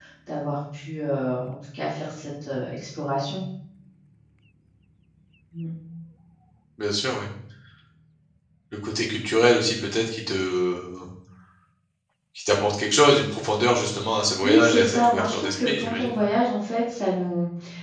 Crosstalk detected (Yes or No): Yes